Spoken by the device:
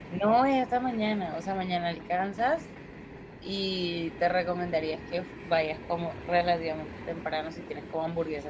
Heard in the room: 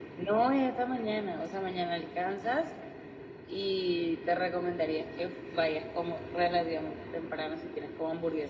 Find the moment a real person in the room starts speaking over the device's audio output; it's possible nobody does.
none

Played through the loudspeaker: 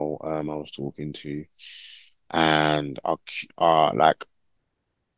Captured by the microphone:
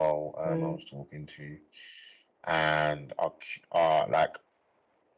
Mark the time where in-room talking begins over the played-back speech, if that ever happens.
0.5 s

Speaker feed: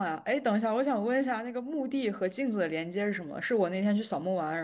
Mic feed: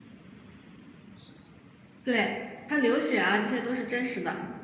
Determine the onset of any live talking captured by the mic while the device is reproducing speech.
2.0 s

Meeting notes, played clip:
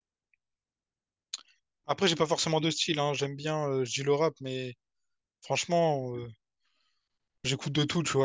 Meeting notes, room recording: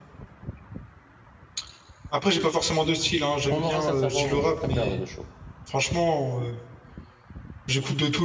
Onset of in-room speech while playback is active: 3.5 s

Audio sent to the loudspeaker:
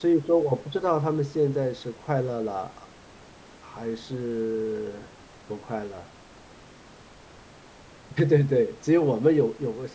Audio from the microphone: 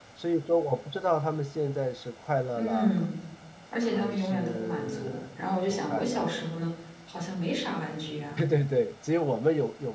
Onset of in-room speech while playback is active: 2.5 s

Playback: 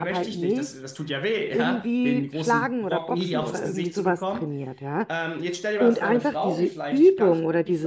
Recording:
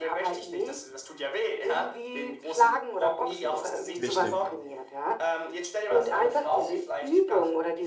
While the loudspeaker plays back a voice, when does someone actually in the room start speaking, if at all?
4.0 s

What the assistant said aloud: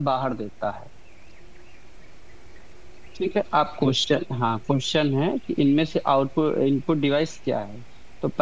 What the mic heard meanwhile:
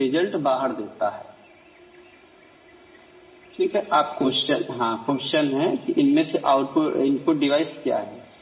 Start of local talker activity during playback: none

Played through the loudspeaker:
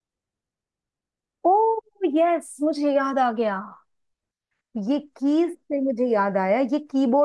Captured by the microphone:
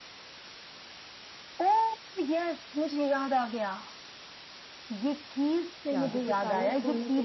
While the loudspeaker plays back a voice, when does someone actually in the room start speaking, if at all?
5.9 s

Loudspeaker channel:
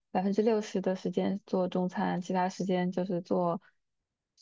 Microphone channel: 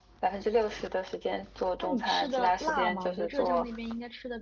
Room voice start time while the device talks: 1.8 s

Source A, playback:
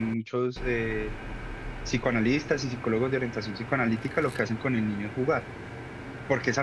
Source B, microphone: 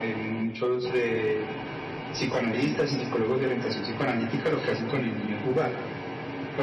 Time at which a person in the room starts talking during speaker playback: none

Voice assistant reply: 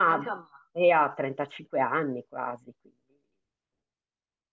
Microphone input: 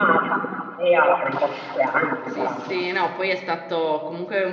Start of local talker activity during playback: 2.2 s

